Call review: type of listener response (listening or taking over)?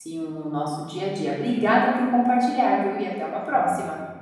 taking over